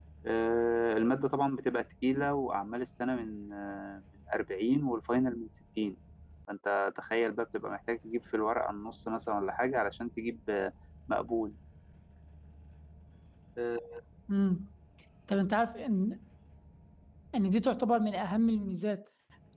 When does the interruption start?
none

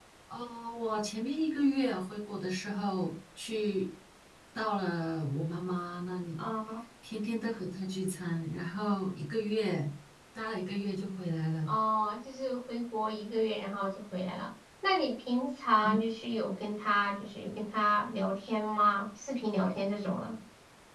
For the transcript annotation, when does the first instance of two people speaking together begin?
none

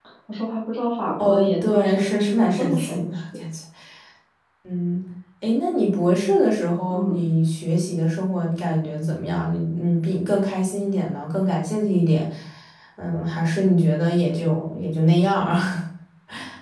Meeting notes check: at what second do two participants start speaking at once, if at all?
1.2 s

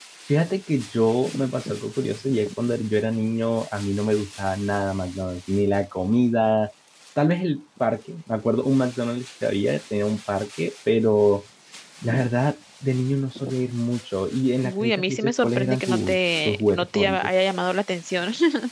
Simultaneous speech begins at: 14.6 s

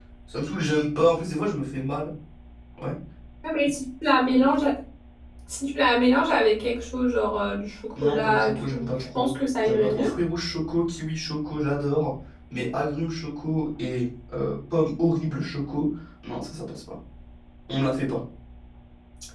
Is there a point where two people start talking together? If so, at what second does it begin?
8.0 s

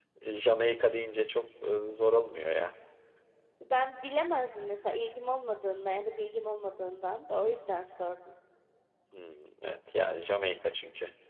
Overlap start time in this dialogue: none

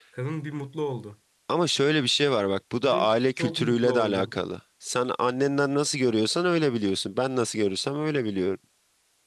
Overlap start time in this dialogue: 2.8 s

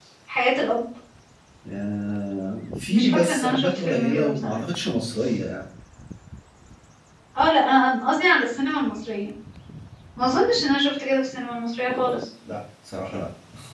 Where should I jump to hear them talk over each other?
2.9 s

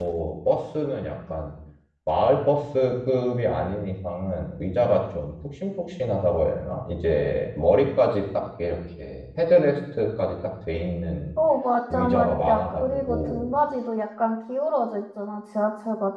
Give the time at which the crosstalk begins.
11.9 s

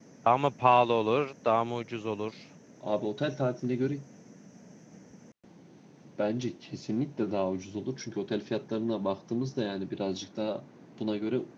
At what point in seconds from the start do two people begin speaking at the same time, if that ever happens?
none

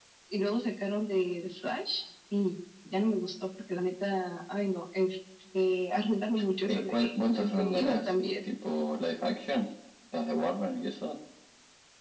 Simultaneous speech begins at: 6.7 s

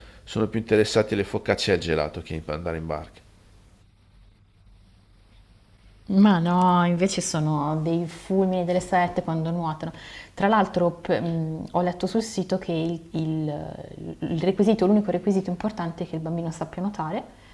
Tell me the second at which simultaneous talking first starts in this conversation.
none

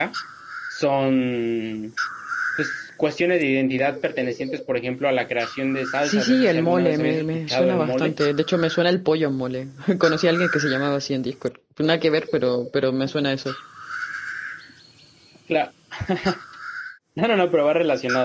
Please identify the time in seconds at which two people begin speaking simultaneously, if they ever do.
6.0 s

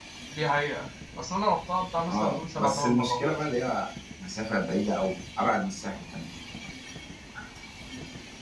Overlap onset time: 2.1 s

